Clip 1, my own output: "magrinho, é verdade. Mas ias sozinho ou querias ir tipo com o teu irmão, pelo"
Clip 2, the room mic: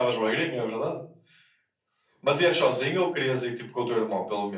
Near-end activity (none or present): none